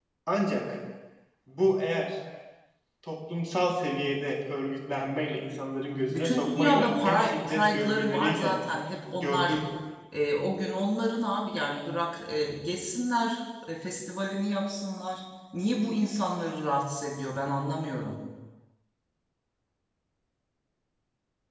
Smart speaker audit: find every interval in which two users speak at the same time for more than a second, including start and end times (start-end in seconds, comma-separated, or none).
6.1-8.6